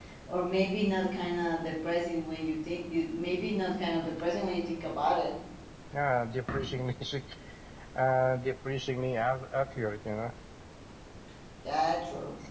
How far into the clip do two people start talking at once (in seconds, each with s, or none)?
none